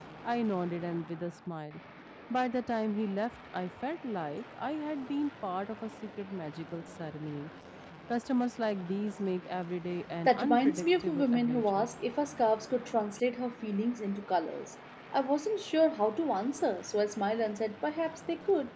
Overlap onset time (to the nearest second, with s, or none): 10 s